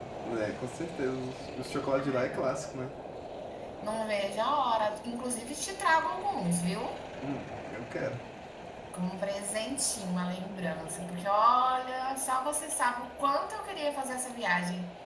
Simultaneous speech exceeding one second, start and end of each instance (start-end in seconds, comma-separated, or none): none